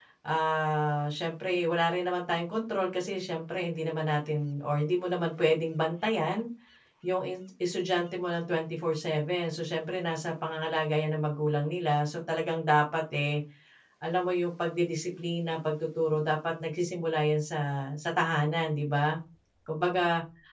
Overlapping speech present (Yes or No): No